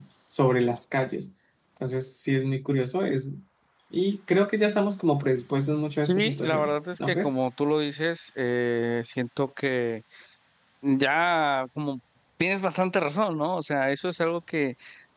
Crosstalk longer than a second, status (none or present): present